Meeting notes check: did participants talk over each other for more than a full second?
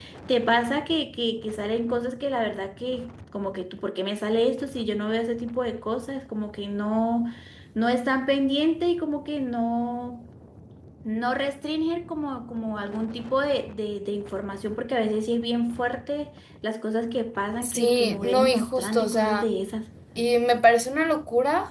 Yes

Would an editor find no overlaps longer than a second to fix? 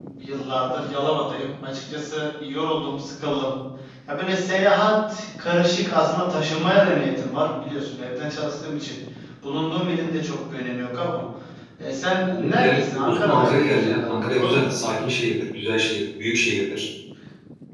No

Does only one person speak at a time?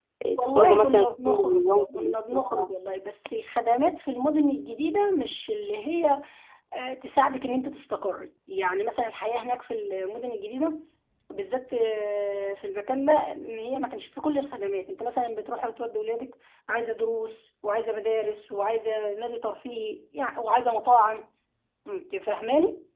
No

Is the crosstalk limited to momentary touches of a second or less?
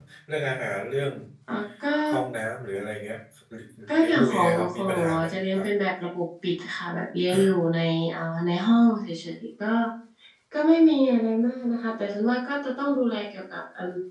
No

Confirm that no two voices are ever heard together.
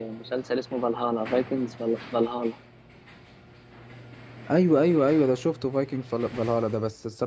Yes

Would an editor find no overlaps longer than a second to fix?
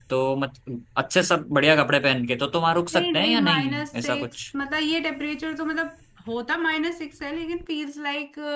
No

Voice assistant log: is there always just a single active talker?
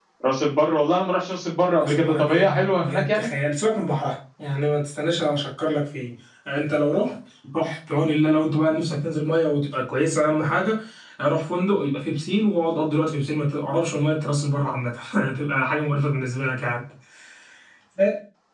No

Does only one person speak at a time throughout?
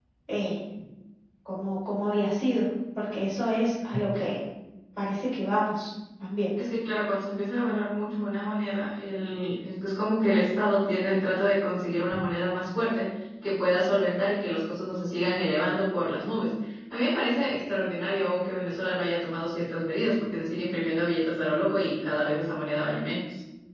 Yes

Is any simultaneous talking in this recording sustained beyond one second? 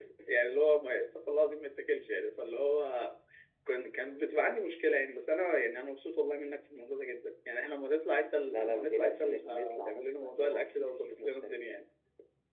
Yes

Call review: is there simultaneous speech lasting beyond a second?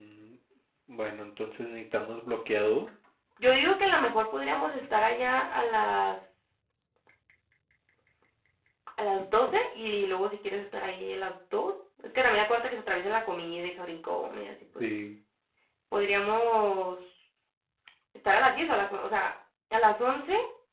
No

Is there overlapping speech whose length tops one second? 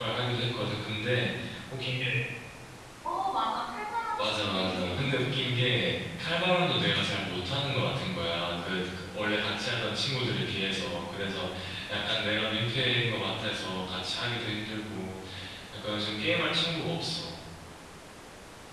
Yes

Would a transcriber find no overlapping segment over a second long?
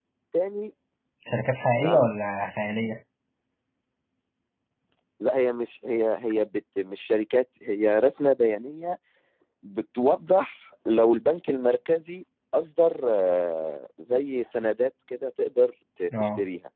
Yes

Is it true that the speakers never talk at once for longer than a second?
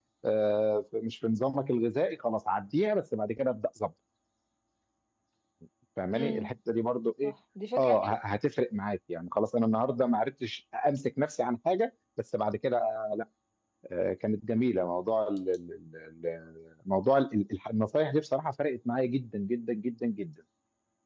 Yes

